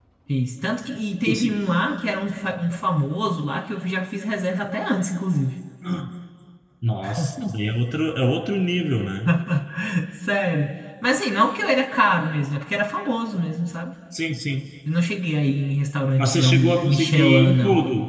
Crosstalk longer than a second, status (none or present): present